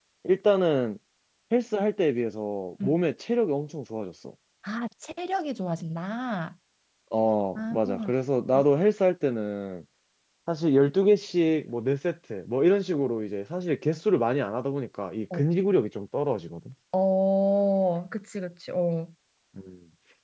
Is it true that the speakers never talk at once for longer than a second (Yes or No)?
Yes